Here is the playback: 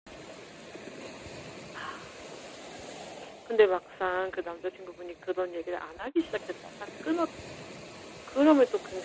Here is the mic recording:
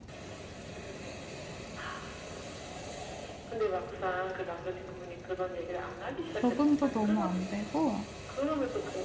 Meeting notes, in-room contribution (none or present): present